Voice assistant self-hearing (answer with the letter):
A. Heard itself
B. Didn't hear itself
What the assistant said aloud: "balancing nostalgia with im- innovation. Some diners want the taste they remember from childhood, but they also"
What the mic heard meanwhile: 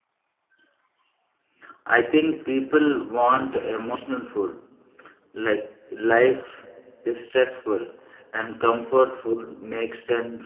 B